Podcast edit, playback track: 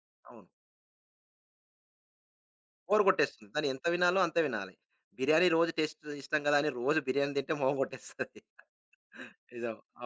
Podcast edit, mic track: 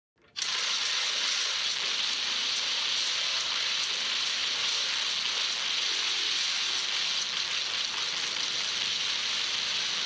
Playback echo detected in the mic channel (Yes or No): No